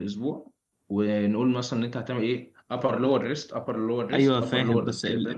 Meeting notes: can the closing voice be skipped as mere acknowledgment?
No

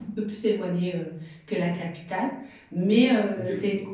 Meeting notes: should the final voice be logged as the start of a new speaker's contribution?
No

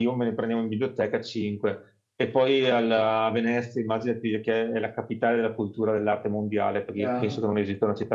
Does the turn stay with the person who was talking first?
Yes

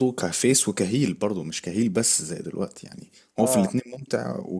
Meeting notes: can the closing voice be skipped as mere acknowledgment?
Yes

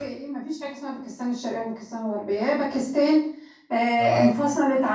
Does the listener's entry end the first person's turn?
No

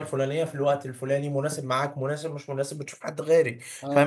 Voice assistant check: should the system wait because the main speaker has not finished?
No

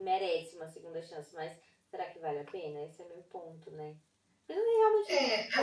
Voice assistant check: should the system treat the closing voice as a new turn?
Yes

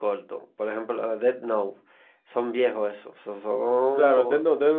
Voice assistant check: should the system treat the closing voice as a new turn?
Yes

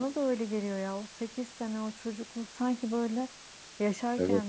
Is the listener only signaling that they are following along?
Yes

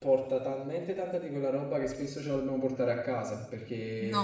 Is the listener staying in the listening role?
Yes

